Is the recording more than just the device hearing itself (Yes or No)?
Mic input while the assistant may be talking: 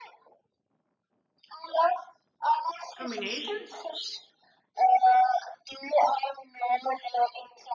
Yes